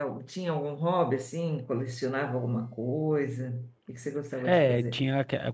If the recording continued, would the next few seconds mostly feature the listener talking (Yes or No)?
Yes